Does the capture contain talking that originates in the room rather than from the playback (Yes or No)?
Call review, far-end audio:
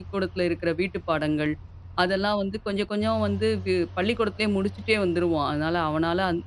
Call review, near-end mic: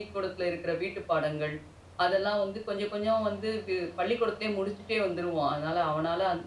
No